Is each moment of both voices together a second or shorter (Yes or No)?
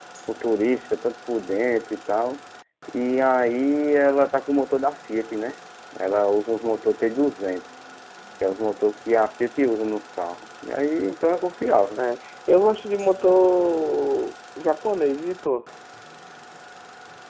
Yes